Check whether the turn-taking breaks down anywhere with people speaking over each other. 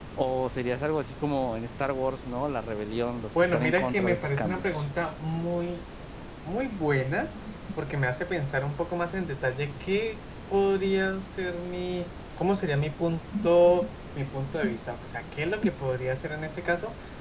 Yes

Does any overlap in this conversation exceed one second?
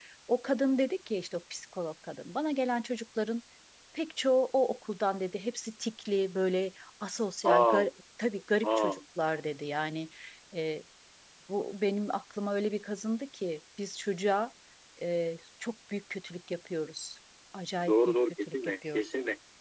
Yes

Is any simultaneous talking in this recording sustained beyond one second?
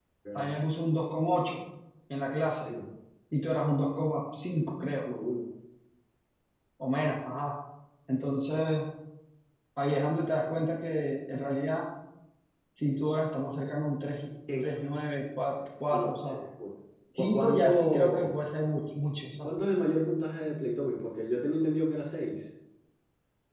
Yes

